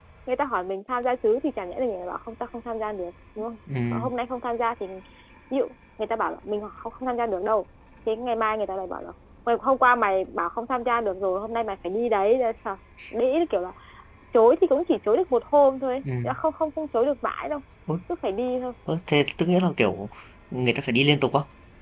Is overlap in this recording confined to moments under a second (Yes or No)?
Yes